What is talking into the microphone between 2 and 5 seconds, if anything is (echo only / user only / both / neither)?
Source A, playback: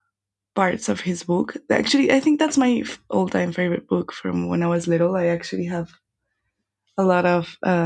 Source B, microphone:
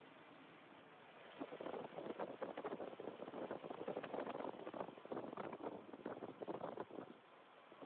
neither